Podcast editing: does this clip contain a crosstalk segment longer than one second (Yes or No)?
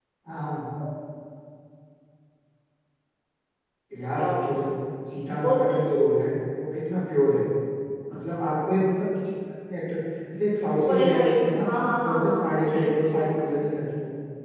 Yes